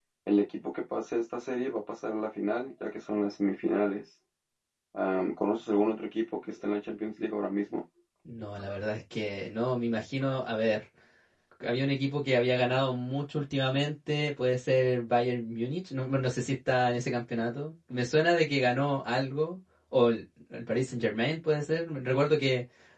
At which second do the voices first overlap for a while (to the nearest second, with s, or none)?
none